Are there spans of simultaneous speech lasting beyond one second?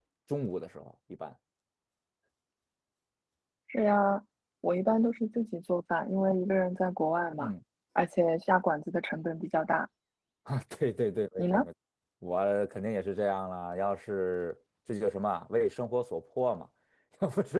No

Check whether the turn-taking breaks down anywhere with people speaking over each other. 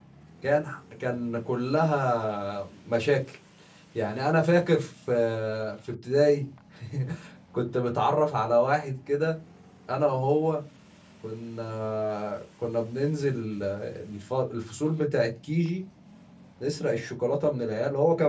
No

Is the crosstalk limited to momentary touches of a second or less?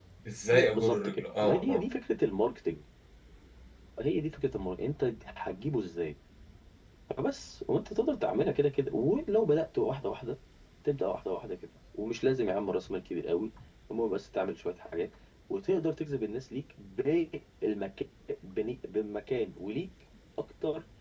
No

